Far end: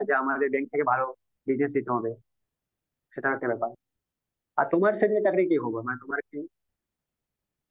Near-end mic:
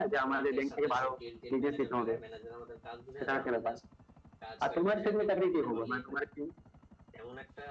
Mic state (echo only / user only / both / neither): both